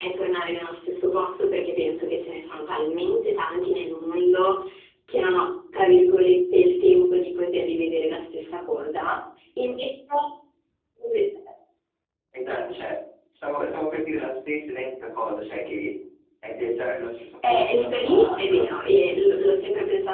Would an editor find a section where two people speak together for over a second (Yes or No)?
Yes